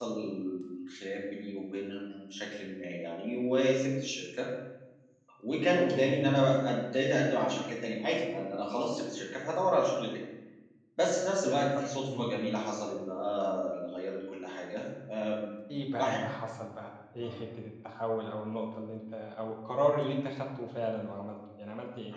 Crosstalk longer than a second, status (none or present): none